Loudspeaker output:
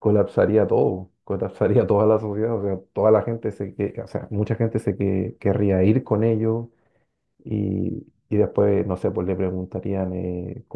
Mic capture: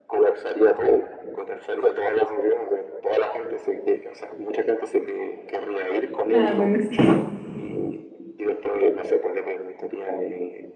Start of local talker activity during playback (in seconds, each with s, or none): 6.3 s